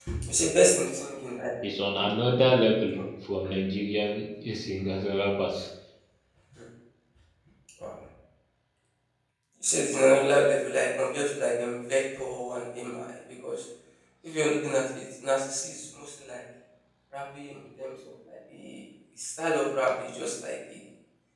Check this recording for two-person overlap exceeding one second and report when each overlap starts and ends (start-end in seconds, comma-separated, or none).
none